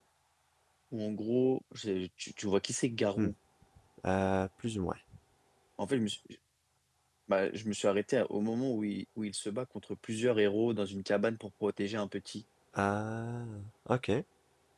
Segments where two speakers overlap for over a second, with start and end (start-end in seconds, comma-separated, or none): none